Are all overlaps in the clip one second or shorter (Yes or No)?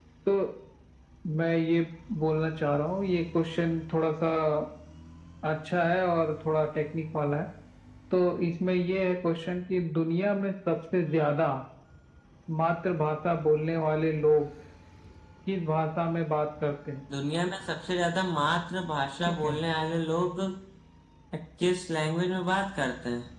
Yes